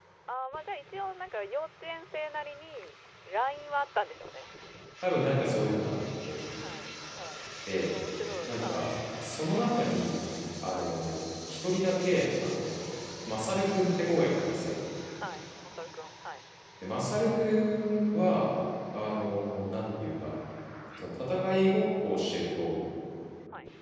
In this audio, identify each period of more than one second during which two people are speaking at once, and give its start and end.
none

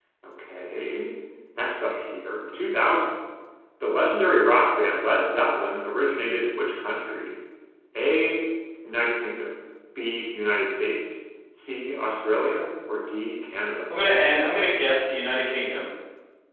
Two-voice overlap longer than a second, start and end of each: none

